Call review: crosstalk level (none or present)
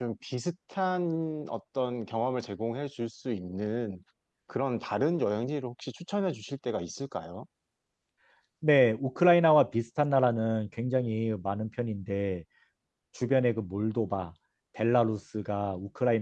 none